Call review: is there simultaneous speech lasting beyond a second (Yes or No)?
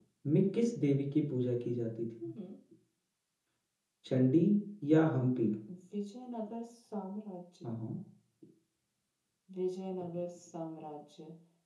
No